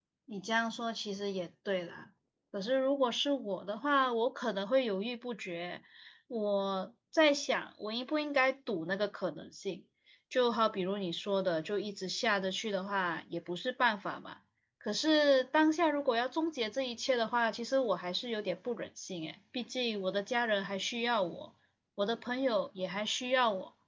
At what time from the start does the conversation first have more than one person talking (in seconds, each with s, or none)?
none